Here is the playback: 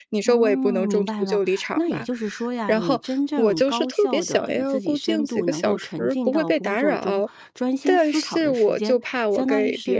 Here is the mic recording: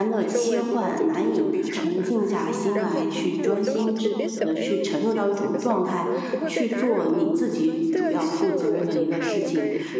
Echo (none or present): present